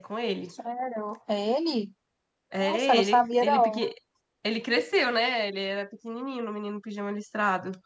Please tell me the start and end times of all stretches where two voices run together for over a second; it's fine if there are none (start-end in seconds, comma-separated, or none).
2.6-3.8